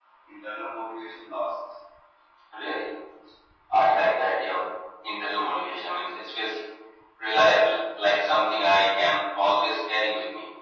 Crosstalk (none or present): none